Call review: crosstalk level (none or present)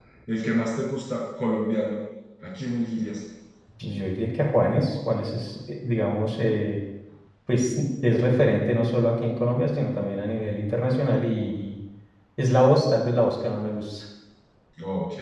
none